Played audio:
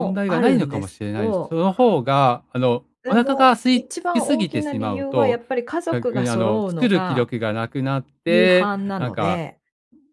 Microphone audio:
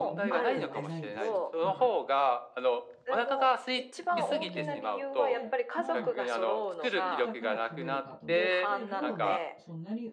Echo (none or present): present